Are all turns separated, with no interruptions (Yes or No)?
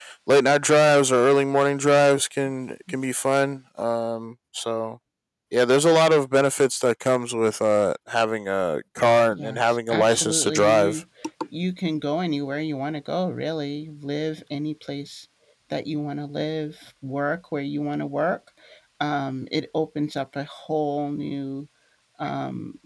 No